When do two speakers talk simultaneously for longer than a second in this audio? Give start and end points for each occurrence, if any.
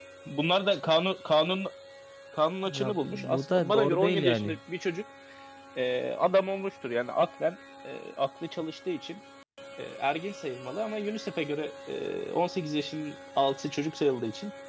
2.6-4.6

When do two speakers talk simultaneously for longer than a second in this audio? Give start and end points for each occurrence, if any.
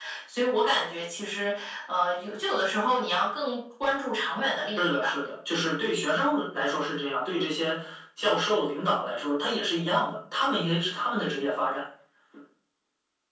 none

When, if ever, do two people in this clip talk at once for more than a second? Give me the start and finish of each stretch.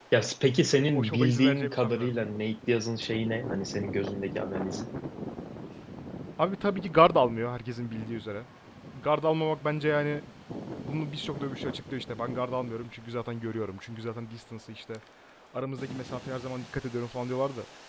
0.9-2.2

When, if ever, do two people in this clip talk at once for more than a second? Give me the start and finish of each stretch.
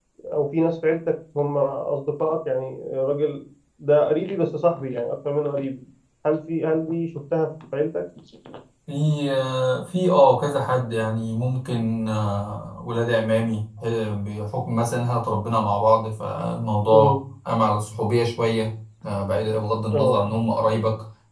none

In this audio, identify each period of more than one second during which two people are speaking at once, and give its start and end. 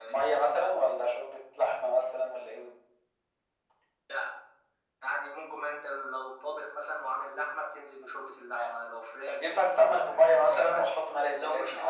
9.4-10.9

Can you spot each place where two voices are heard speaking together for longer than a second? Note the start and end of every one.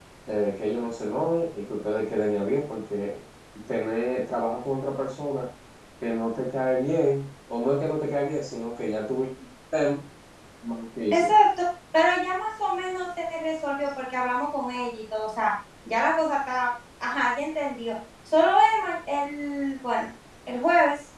none

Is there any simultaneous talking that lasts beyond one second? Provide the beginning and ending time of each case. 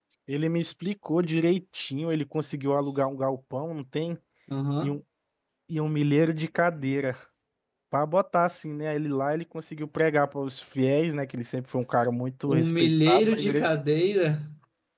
12.5-13.7

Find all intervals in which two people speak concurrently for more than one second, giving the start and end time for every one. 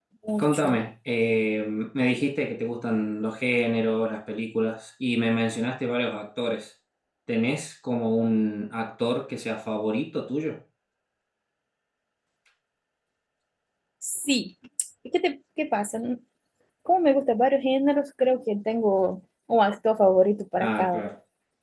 none

